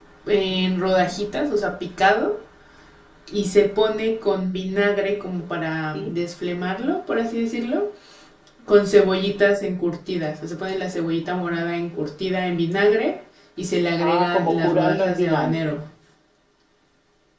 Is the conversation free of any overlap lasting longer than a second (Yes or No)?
No